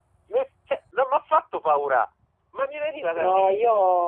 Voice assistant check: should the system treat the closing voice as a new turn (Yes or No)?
Yes